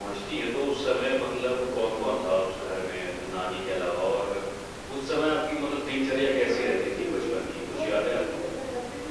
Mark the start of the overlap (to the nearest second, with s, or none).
6 s